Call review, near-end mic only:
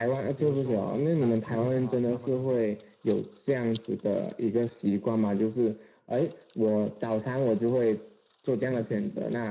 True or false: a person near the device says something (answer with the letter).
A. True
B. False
A